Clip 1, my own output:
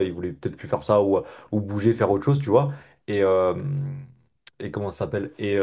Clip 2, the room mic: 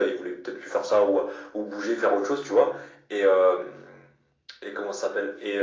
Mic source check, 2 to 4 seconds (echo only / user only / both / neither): echo only